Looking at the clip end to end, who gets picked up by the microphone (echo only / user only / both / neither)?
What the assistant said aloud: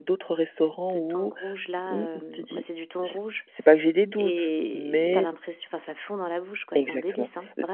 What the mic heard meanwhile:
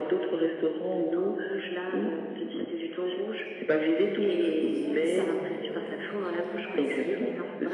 both